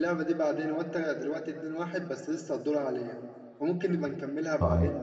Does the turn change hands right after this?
Yes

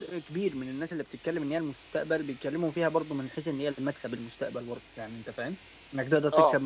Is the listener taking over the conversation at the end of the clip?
No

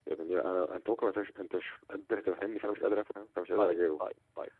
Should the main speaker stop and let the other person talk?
Yes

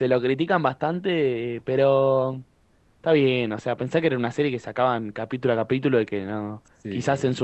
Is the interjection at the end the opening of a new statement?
No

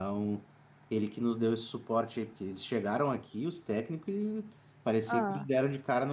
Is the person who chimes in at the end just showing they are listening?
Yes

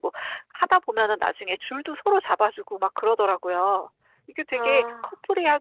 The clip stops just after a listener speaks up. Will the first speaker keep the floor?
Yes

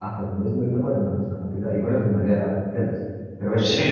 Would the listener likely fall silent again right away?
No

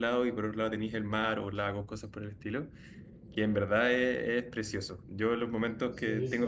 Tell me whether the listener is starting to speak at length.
Yes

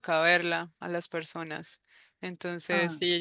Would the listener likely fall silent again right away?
Yes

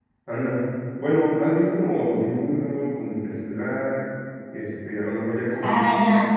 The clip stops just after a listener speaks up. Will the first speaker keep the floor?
No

